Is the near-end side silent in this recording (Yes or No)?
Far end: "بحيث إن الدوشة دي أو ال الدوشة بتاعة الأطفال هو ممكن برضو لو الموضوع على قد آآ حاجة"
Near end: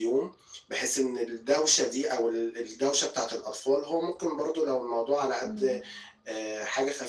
No